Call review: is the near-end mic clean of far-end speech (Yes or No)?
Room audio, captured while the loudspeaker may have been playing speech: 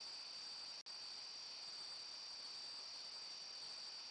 Yes